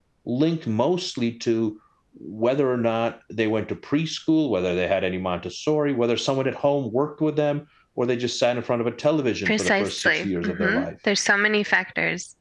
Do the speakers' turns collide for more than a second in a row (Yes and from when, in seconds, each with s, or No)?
Yes, from 9.4 s